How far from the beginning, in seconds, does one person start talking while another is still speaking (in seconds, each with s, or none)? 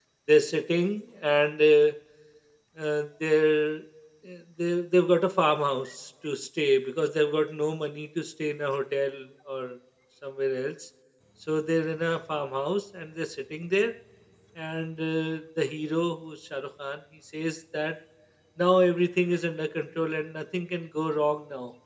none